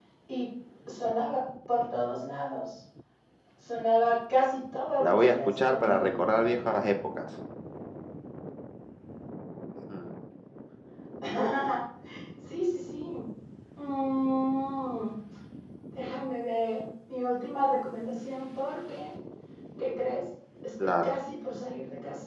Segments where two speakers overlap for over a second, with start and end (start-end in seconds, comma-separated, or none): 5.0-6.2